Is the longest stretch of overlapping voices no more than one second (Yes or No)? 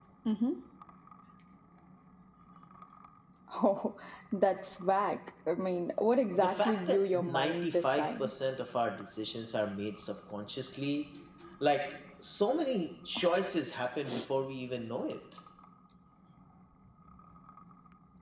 No